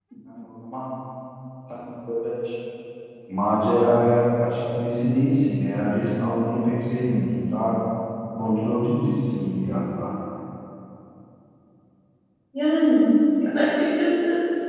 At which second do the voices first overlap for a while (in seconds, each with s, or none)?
none